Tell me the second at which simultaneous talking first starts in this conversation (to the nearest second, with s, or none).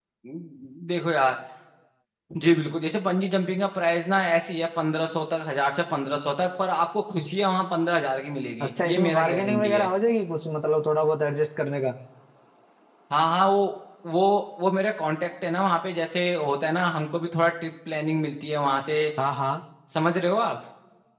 9 s